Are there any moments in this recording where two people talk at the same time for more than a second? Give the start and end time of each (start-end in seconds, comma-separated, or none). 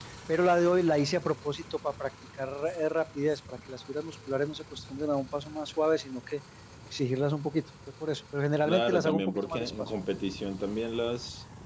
8.7-9.9